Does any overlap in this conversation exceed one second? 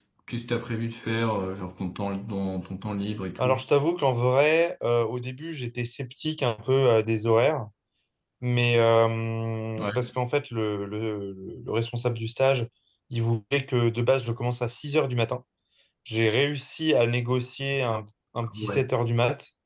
No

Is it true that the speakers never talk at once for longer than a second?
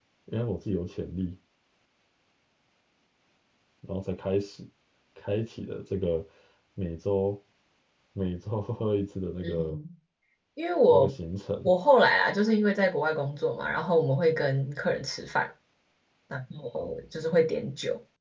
Yes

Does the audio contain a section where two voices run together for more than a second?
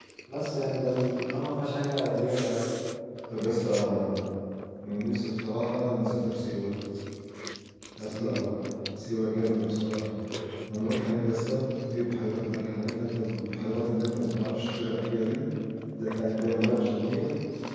No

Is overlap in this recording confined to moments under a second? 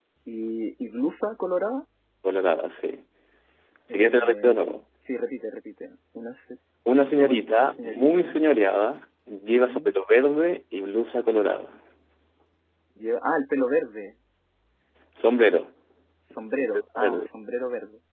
No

